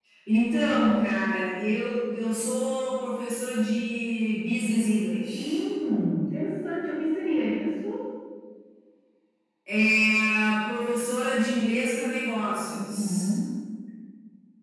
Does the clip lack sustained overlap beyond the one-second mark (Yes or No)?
Yes